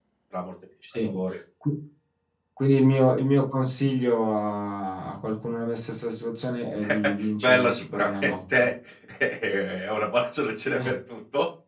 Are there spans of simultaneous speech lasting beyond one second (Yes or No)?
Yes